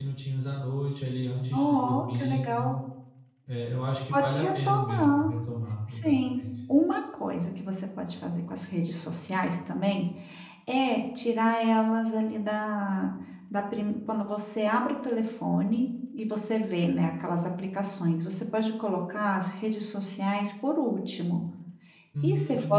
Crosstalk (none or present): present